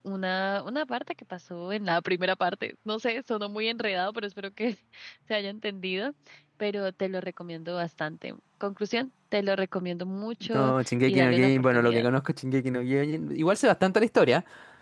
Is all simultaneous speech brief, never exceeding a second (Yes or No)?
No